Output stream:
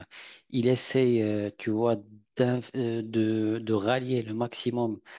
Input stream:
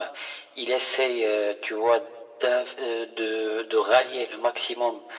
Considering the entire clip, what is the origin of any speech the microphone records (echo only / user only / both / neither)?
echo only